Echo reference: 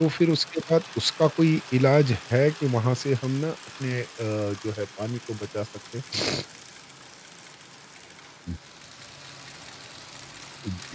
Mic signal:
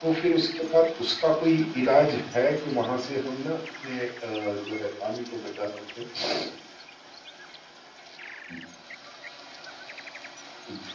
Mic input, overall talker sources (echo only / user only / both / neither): echo only